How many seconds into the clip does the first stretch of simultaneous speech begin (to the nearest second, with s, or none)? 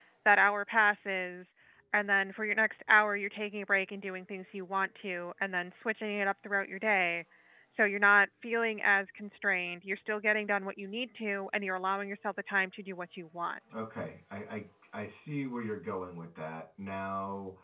none